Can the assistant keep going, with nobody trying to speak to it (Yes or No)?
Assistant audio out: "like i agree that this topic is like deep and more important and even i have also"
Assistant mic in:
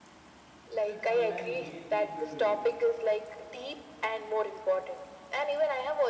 No